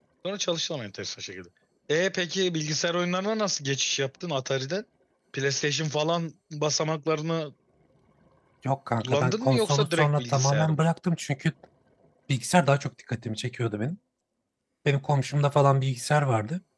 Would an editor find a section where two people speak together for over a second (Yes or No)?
Yes